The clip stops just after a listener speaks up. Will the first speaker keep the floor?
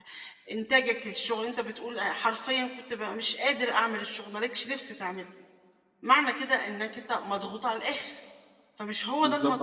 No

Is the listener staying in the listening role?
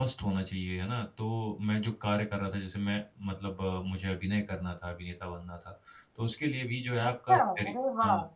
No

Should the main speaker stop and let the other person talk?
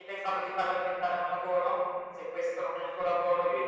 Yes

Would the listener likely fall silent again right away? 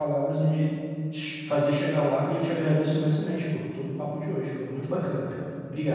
No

